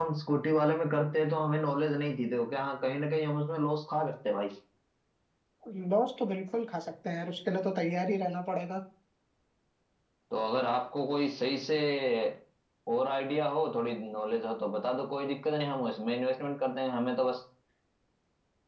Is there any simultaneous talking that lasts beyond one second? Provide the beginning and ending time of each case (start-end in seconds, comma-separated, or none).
none